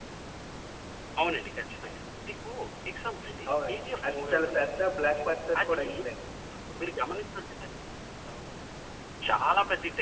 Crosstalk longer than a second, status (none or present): present